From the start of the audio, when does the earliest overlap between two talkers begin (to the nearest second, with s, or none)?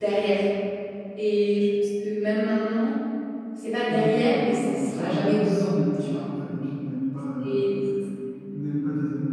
4 s